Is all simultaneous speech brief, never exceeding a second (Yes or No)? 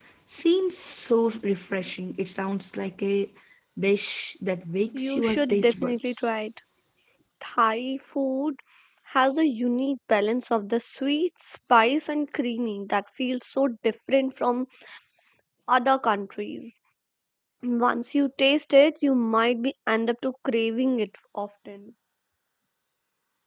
No